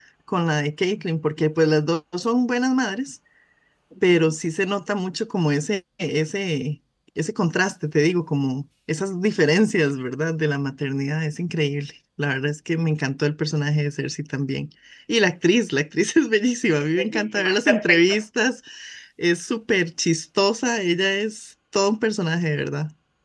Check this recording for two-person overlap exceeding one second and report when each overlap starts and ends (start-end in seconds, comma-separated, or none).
16.8-18.2